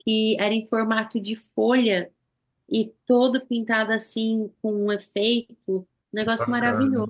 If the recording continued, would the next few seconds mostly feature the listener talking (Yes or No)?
Yes